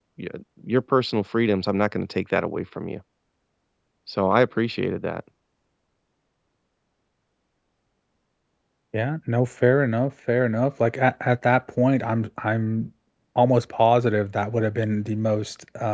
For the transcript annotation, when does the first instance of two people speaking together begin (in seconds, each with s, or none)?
none